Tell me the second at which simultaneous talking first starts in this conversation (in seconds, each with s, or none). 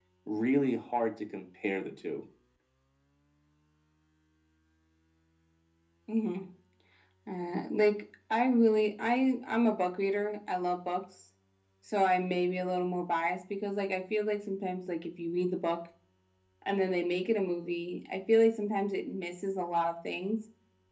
none